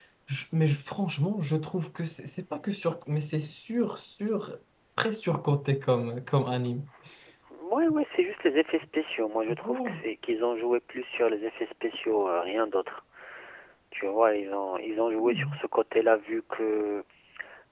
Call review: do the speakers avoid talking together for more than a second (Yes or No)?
Yes